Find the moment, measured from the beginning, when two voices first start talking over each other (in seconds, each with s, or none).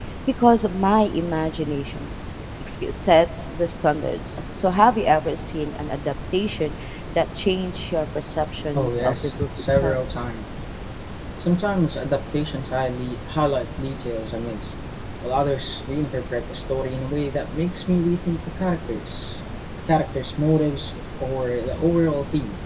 8.7 s